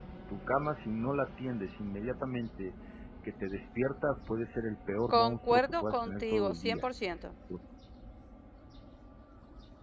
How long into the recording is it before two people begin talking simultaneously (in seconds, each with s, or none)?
5.1 s